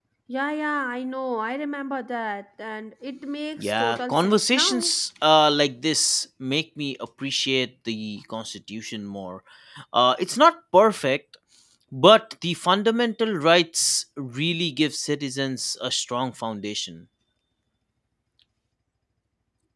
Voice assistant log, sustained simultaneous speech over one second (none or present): present